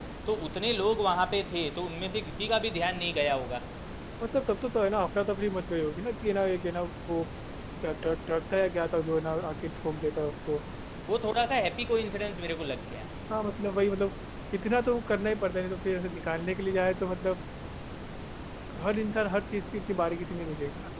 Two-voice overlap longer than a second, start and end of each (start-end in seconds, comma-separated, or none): none